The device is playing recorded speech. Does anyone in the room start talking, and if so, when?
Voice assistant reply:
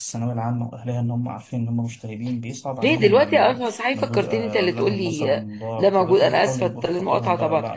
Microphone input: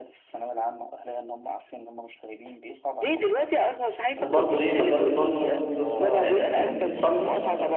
4 s

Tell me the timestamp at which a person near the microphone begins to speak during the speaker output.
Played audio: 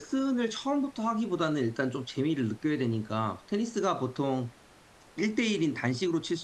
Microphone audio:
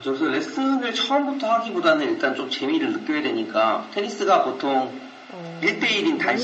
5 s

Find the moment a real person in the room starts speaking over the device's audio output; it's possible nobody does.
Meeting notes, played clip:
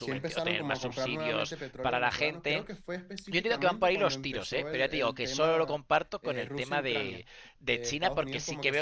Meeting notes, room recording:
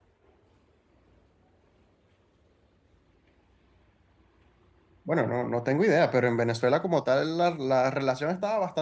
5 s

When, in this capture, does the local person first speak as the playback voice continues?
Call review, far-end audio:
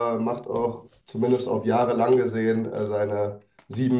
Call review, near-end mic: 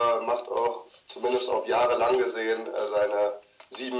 none

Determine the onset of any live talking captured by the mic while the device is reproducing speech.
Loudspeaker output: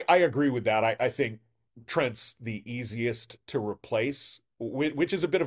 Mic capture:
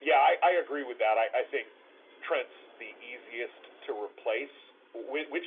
none

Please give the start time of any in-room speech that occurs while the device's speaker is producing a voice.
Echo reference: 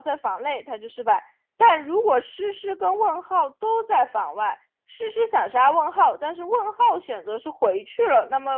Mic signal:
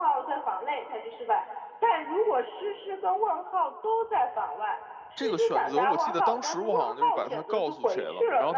5 s

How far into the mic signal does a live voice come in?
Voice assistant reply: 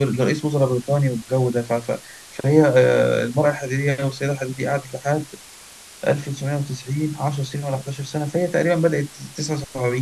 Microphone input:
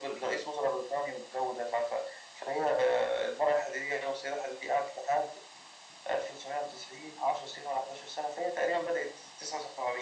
none

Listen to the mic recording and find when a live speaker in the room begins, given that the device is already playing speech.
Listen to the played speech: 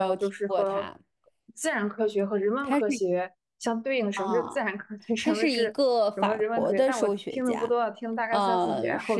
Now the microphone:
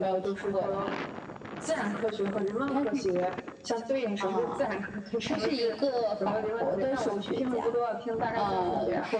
none

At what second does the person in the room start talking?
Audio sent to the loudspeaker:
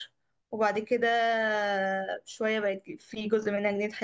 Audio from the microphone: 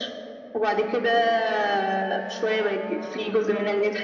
none

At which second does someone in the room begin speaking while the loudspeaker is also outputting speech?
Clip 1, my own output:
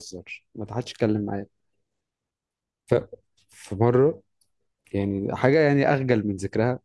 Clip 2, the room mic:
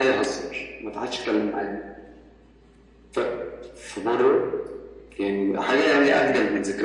6 s

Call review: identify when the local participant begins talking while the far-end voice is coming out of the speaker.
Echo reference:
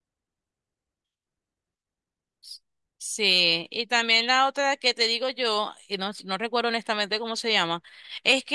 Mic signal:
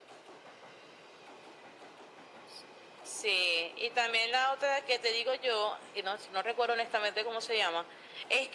none

